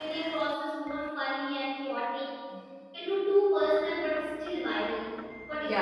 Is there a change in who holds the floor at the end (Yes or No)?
Yes